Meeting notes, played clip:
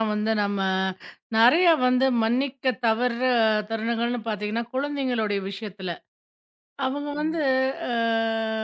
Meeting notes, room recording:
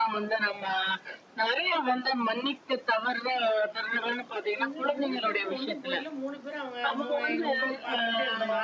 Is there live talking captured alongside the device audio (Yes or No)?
Yes